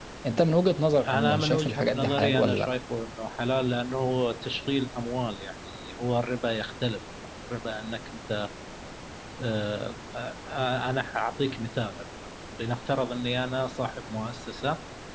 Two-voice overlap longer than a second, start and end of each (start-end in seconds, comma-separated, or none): 1.0-2.7